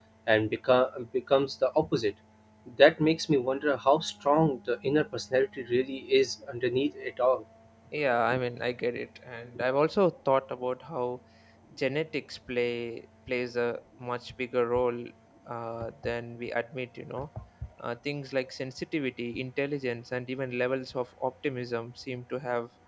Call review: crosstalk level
none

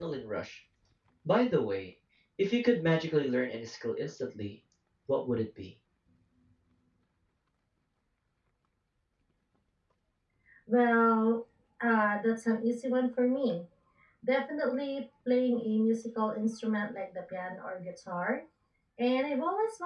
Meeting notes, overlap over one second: none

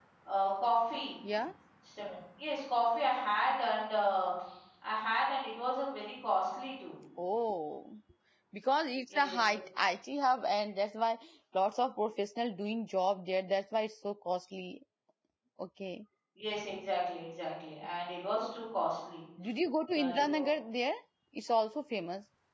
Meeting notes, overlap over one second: none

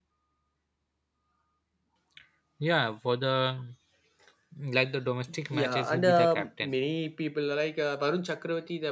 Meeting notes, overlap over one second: present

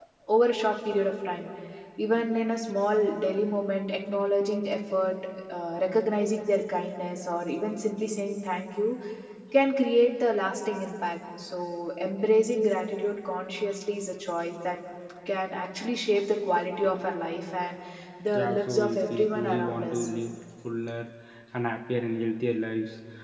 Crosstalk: present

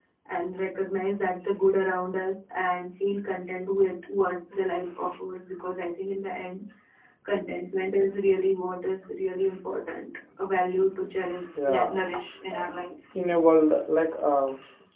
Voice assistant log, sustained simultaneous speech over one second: none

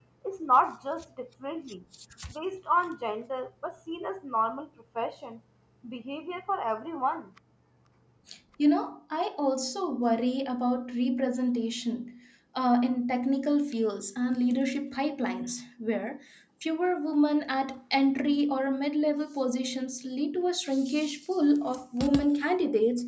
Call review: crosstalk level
none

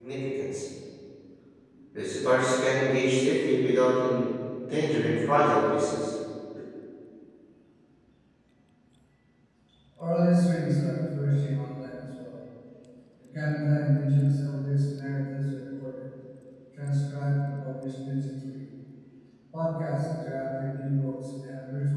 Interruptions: none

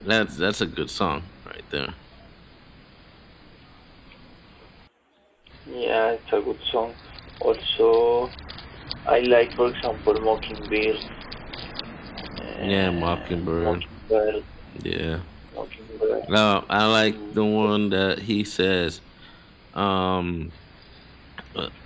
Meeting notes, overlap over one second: present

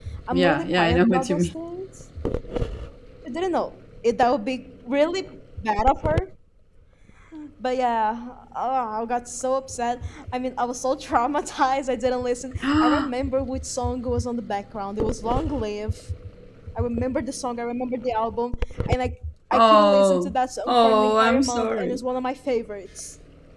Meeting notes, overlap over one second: present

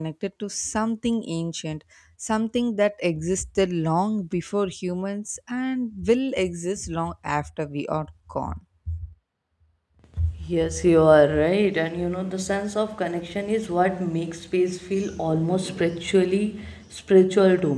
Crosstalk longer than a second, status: none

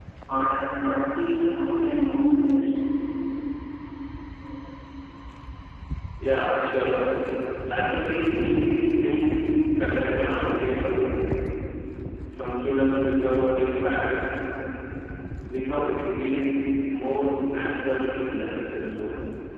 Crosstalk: none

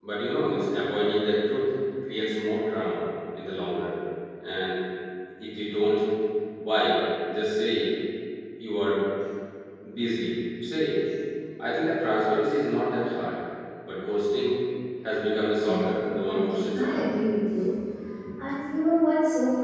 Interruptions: present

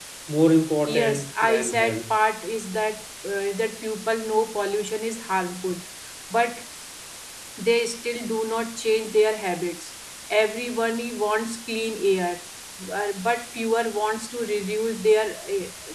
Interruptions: present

